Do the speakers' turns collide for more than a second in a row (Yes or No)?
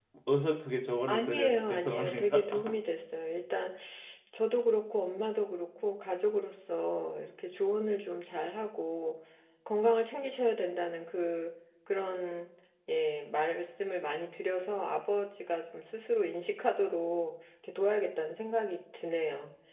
Yes